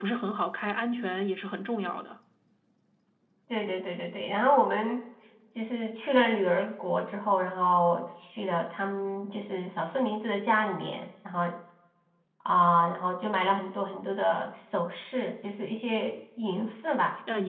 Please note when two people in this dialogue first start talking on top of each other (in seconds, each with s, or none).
none